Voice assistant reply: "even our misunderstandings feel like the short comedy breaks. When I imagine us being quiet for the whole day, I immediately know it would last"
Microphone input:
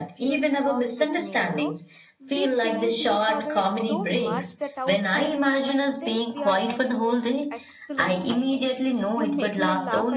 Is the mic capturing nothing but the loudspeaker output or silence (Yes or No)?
No